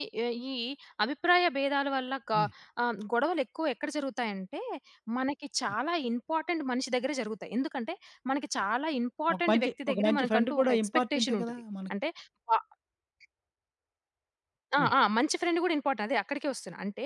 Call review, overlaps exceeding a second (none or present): present